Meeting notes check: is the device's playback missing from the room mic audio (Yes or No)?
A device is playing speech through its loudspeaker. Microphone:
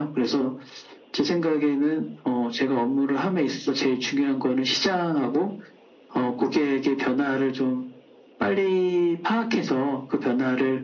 No